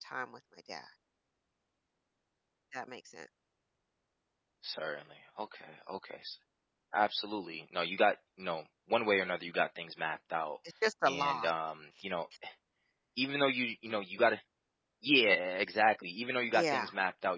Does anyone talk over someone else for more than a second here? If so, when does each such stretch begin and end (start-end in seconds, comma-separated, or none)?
none